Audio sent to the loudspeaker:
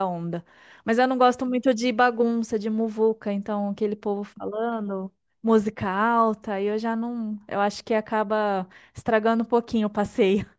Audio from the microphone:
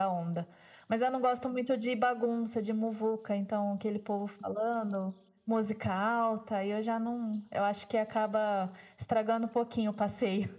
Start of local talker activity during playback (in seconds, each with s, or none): none